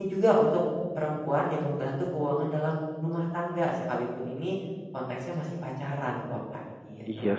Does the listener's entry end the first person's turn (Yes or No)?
Yes